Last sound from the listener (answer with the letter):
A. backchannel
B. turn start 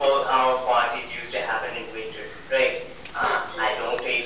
A